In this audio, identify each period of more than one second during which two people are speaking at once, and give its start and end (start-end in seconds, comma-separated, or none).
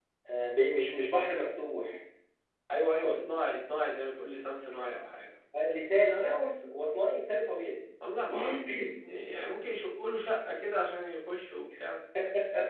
none